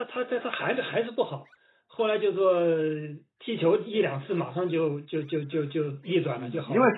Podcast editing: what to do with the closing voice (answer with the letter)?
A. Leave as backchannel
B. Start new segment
B